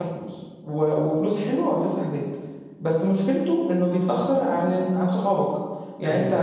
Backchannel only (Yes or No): Yes